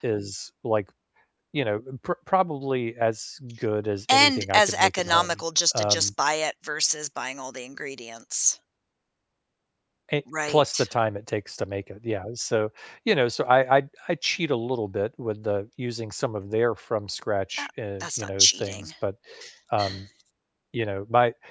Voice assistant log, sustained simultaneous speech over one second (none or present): present